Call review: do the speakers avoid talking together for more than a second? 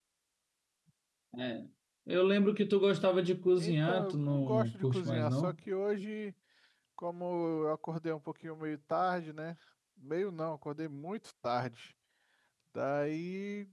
No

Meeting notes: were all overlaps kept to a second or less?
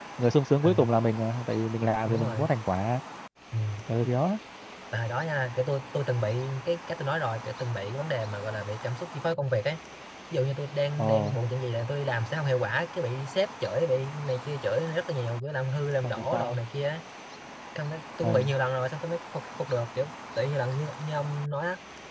Yes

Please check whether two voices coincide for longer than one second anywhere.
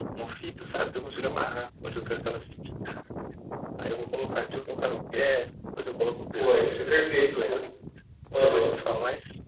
Yes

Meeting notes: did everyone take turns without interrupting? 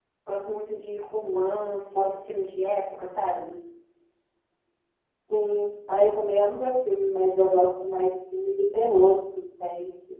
Yes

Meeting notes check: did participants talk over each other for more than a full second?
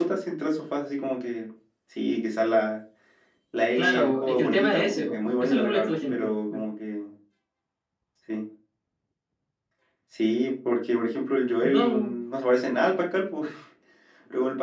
Yes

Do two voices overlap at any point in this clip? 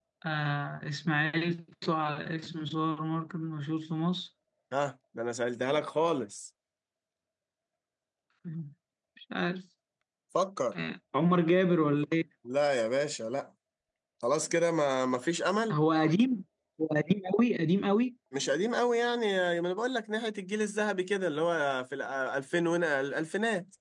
No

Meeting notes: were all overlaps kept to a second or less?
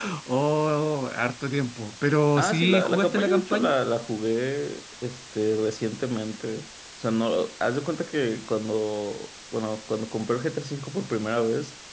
No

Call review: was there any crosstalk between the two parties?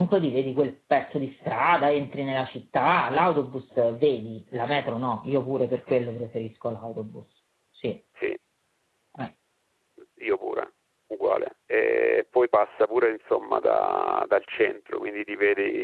No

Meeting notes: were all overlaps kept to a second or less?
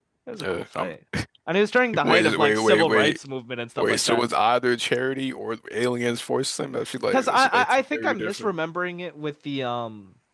No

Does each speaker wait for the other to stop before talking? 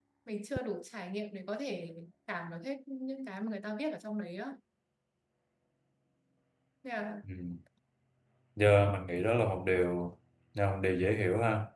Yes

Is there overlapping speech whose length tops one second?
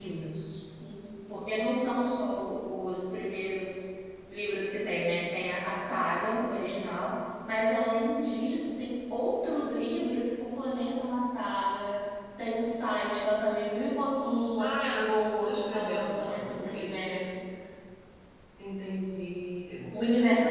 Yes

